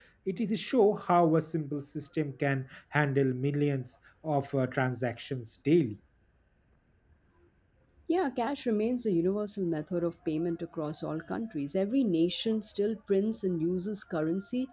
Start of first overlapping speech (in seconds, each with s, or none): none